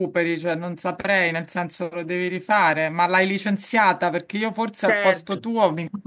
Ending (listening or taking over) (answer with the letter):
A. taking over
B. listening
B